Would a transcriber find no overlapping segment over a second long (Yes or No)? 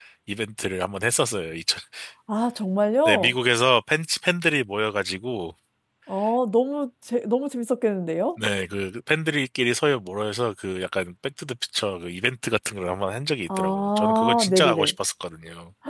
No